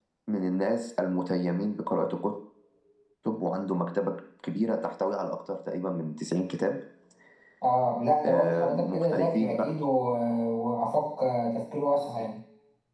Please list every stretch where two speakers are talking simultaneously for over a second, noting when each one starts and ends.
8.2-9.6

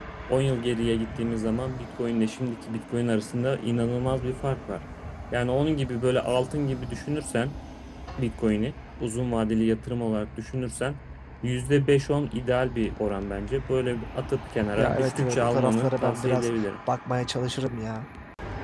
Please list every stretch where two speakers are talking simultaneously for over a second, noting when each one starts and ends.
14.8-16.5

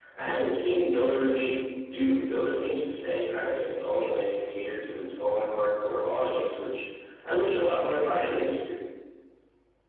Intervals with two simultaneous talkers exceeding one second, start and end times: none

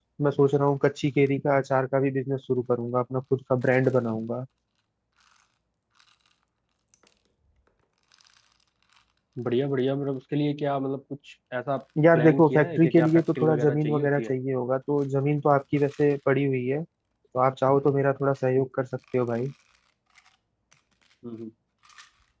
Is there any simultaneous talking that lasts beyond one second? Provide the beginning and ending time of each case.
12.2-14.3

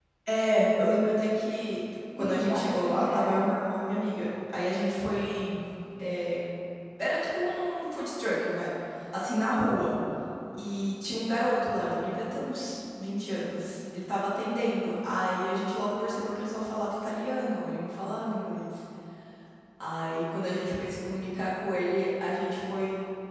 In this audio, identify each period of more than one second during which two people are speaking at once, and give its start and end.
2.2-3.5

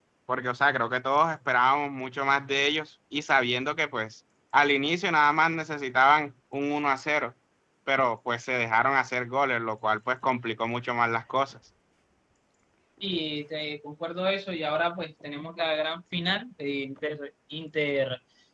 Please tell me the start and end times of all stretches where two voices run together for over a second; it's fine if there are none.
none

